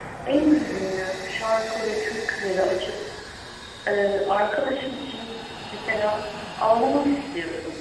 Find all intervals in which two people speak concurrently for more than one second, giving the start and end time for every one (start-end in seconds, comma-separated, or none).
none